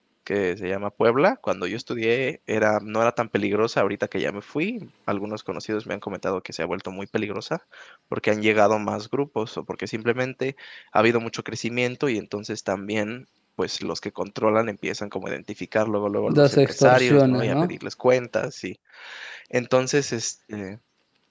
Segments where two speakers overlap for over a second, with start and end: 16.2-17.7

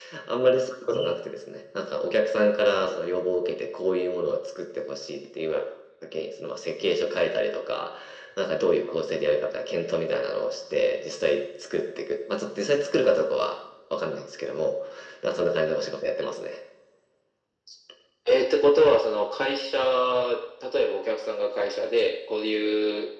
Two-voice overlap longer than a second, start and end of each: none

